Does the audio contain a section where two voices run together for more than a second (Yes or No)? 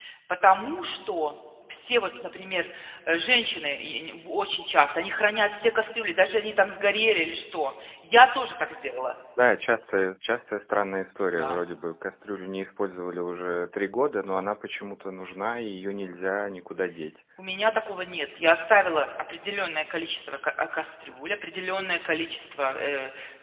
No